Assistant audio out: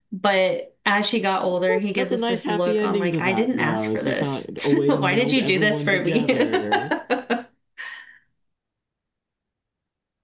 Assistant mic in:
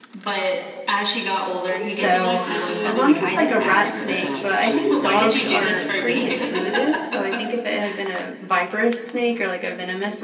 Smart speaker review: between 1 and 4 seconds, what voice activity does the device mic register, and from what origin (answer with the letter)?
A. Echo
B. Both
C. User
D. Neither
B